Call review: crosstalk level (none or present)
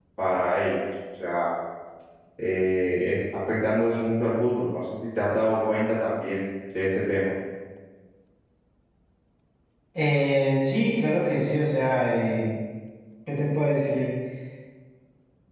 none